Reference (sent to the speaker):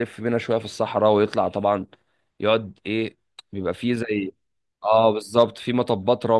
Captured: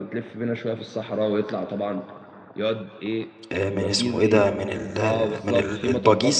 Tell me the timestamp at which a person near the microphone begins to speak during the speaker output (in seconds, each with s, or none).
3.5 s